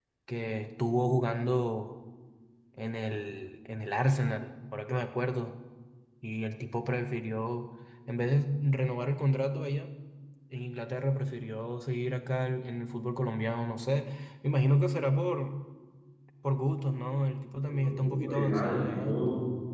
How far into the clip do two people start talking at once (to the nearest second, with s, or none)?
18 s